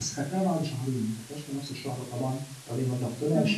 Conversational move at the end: listening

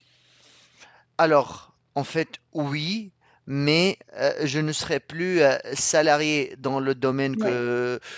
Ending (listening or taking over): listening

